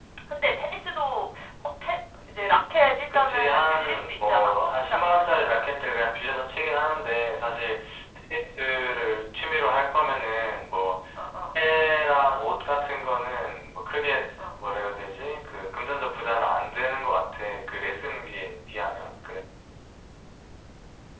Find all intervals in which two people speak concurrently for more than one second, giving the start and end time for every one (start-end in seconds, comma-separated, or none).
3.1-5.4